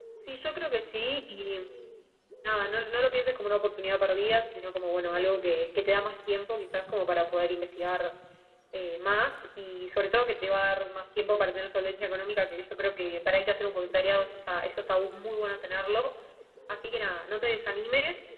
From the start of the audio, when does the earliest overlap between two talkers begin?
none

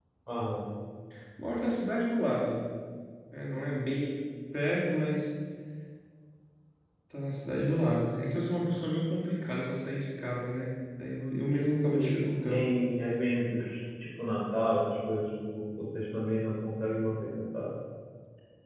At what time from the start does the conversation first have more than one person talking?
11.5 s

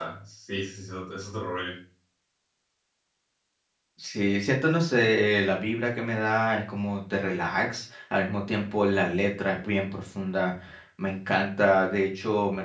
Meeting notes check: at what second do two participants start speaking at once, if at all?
none

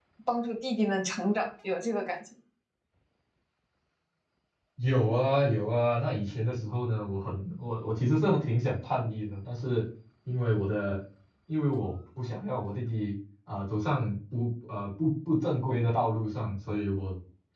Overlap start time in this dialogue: none

